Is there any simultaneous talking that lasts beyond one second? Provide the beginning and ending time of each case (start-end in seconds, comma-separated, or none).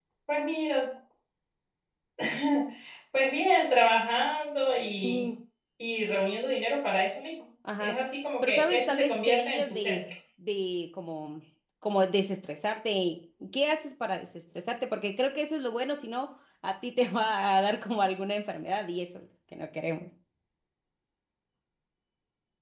8.4-10.0